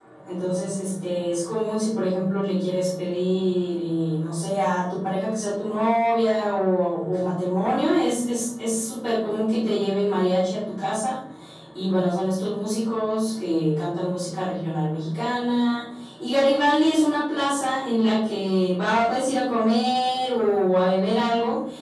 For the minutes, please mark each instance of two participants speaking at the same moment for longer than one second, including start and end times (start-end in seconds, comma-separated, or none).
none